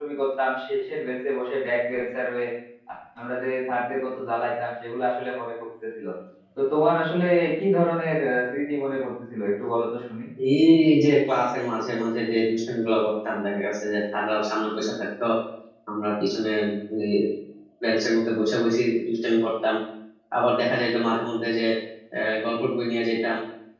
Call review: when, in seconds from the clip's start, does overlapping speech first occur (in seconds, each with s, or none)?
none